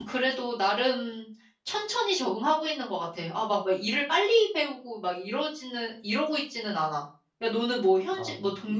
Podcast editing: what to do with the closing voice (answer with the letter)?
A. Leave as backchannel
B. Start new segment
A